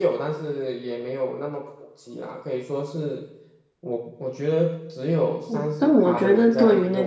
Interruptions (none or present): present